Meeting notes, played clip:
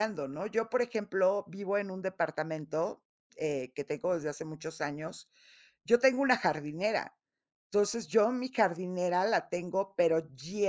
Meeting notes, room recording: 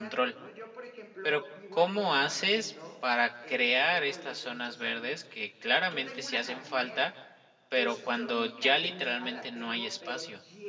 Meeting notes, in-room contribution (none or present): present